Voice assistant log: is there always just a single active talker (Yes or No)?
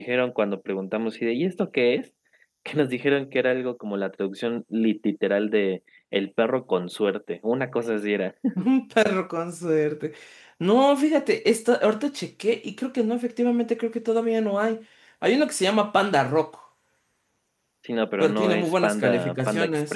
No